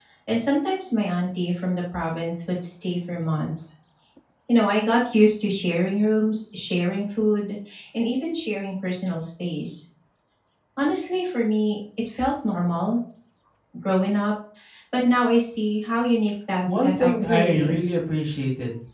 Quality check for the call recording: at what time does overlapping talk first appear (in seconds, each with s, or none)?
16.7 s